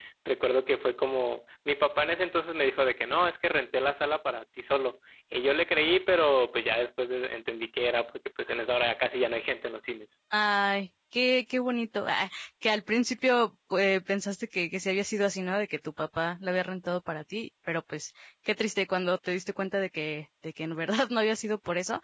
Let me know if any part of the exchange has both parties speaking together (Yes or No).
No